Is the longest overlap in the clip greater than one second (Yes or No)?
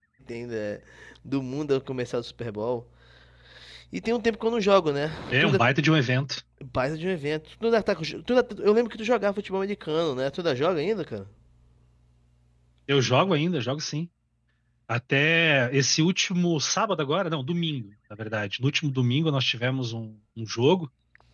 No